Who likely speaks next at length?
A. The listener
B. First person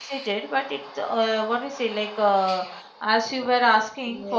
A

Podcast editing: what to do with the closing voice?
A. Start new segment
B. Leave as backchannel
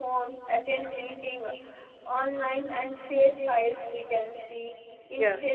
B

